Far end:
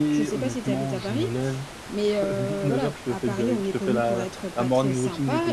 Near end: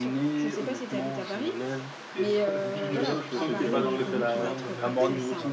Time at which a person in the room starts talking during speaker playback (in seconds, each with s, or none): 2.1 s